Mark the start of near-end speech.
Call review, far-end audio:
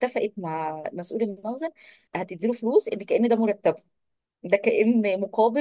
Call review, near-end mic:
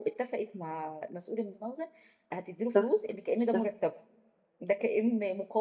2.6 s

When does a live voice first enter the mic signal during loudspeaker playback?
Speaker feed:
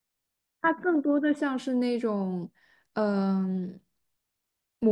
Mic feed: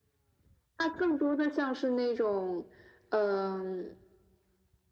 none

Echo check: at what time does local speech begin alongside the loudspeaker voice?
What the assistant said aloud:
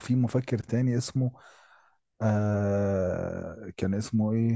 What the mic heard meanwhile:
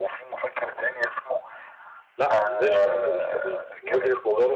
2.2 s

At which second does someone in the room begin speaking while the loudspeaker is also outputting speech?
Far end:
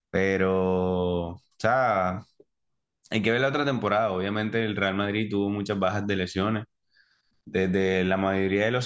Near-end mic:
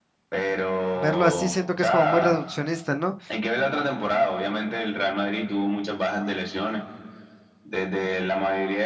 0.8 s

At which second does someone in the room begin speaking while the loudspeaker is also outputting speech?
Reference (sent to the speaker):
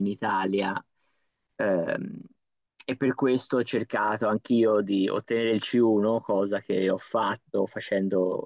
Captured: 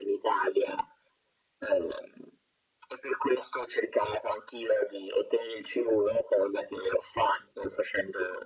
none

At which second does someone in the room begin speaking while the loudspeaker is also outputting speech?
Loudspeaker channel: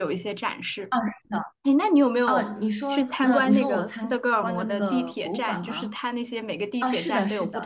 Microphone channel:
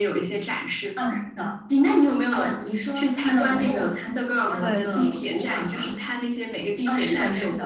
4.6 s

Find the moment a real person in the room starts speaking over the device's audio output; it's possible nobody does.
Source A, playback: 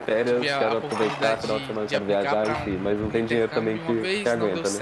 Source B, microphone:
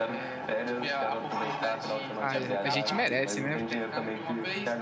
2.1 s

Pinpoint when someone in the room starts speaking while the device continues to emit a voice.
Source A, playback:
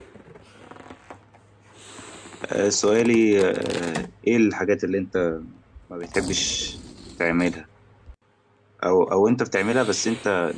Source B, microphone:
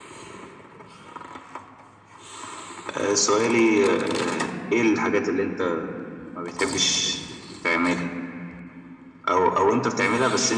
none

